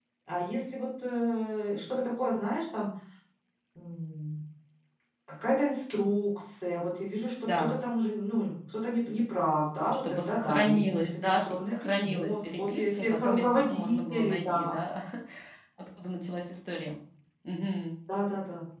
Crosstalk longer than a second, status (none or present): present